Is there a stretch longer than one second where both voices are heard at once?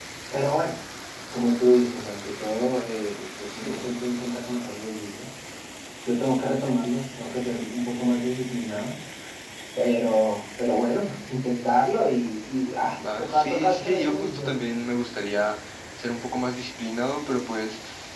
Yes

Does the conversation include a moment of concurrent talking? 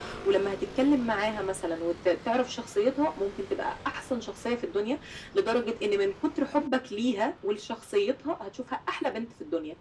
No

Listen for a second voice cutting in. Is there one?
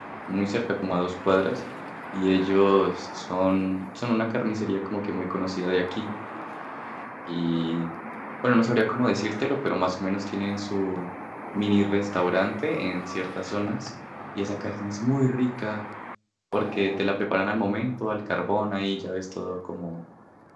No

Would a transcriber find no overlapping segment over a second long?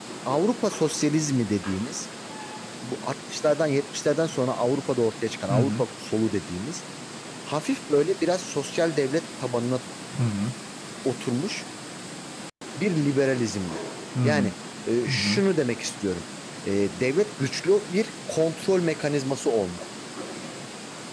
Yes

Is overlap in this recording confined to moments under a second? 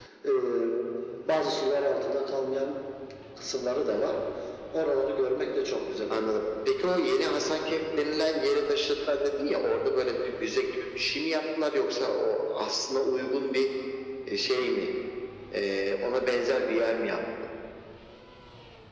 Yes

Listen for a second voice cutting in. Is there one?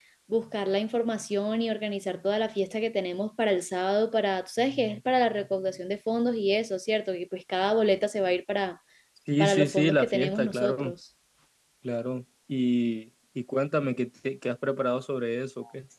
Yes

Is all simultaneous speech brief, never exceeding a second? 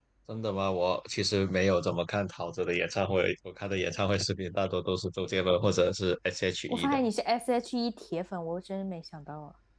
Yes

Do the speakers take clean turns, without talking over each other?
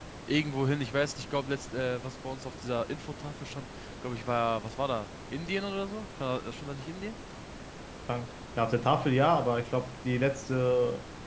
Yes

